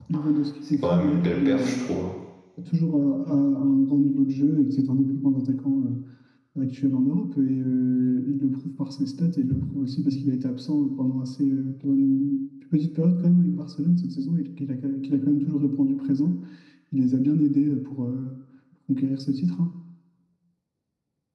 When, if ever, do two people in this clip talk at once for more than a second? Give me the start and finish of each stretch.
0.7-1.9

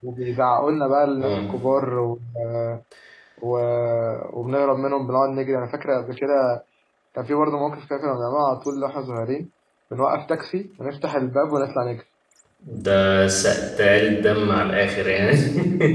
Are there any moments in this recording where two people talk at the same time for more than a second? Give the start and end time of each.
none

